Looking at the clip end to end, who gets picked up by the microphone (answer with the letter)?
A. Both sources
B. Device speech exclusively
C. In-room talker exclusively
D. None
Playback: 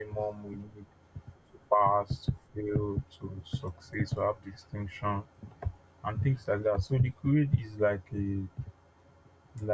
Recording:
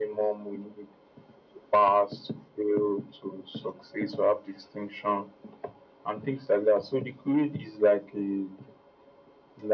B